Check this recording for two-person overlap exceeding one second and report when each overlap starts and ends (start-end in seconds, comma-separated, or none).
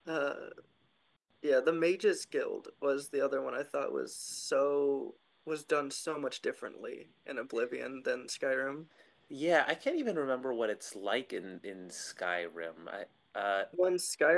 none